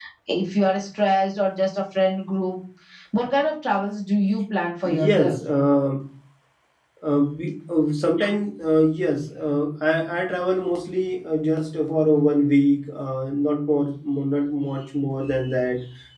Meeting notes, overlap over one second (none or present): none